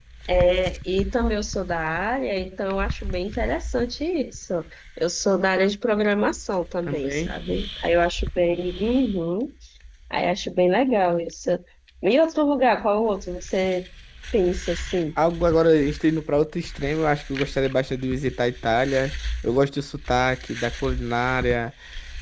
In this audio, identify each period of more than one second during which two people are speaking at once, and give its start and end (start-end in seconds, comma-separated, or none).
none